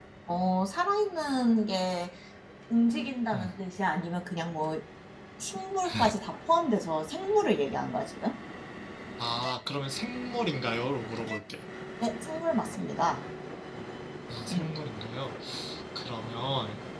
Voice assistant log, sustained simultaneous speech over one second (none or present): none